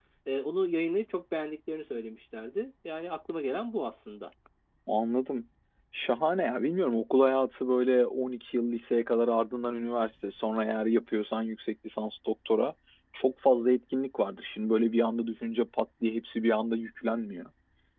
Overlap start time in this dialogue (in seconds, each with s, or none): none